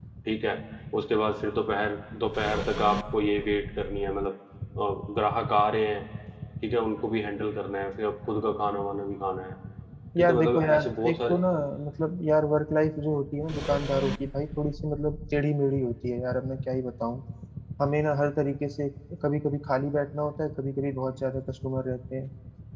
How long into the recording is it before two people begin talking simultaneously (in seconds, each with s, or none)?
10.2 s